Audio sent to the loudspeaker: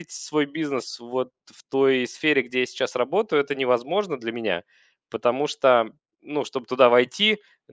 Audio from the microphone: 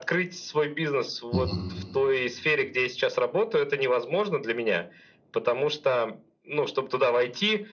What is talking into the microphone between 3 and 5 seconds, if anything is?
echo only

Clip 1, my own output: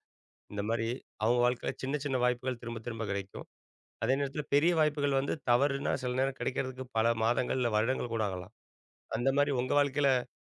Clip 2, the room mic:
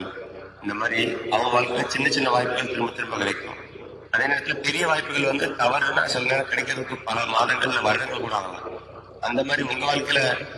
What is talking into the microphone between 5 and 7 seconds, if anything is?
echo only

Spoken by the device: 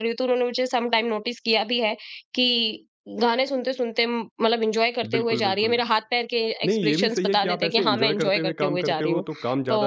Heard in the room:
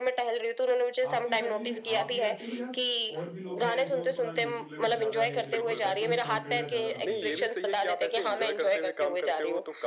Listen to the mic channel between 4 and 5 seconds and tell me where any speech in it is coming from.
both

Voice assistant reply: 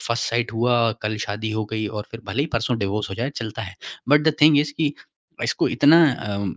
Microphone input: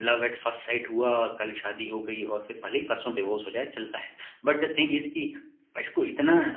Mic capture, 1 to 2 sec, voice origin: echo only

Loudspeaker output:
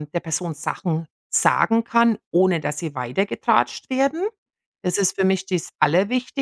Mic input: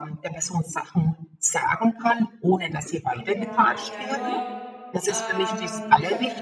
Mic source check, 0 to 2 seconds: echo only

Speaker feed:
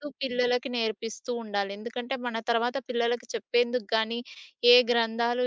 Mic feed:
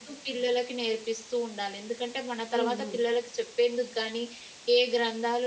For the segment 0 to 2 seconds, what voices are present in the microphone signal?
echo only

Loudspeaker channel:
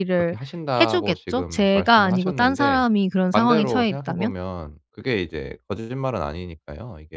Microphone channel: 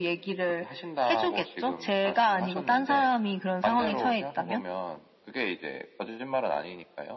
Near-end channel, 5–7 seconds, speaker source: echo only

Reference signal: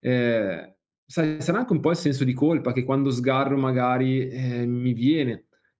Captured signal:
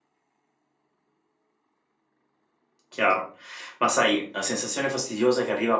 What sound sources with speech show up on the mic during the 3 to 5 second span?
user only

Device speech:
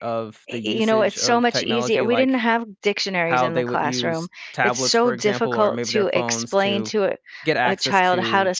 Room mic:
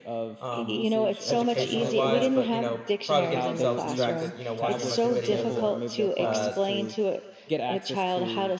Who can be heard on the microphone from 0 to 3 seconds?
both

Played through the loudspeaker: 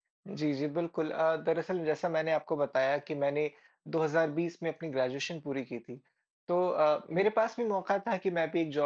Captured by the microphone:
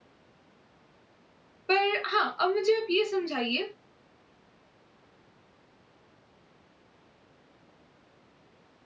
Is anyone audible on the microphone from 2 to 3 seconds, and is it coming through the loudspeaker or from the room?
user only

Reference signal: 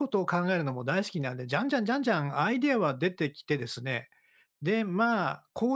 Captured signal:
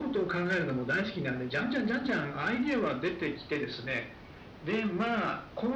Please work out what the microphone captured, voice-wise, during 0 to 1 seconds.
echo only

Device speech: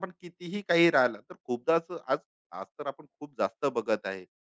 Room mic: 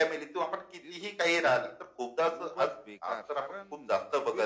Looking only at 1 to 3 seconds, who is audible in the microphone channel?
both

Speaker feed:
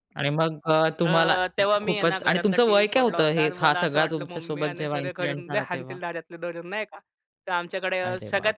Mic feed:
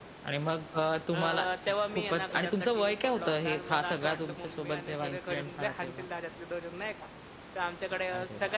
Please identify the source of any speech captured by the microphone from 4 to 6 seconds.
echo only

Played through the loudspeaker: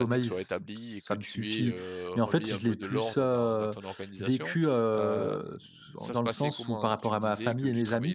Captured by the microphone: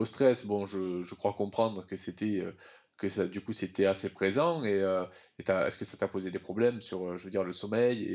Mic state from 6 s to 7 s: user only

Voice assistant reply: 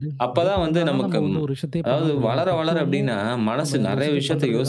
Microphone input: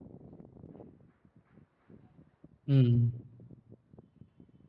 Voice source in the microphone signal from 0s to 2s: neither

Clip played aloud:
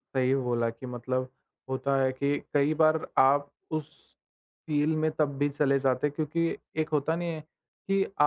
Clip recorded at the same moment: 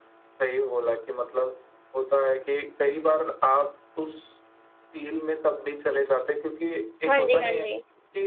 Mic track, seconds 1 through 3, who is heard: echo only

